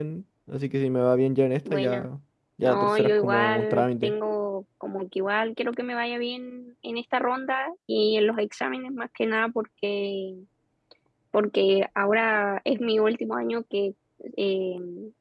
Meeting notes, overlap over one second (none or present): present